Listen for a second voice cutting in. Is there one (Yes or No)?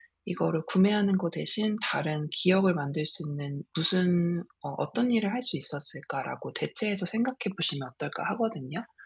No